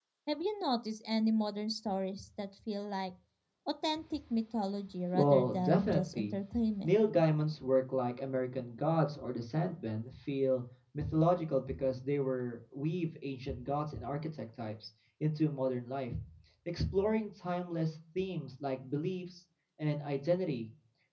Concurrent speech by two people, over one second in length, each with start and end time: 5.1-6.4

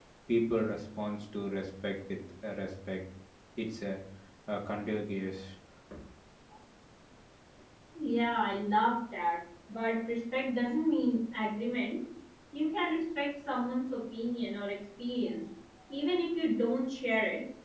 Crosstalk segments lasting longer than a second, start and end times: none

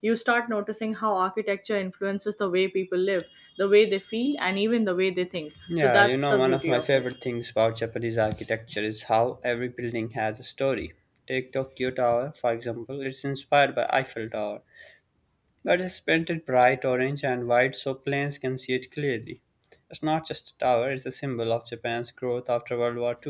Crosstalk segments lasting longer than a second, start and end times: 5.8-7.0

